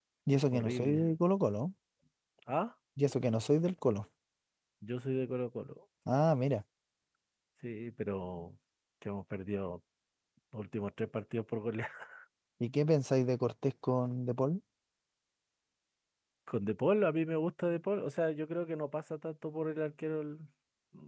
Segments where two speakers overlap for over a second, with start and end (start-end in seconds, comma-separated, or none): none